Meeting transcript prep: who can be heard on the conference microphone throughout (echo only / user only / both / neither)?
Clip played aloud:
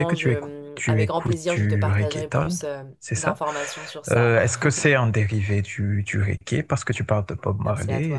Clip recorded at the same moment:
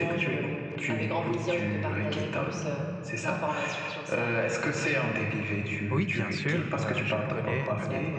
both